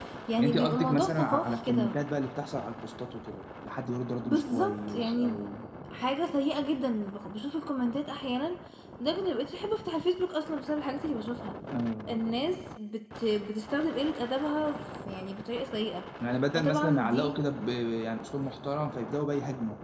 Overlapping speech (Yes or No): Yes